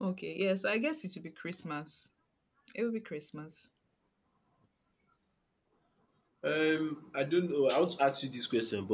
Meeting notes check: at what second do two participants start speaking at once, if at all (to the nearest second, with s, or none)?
none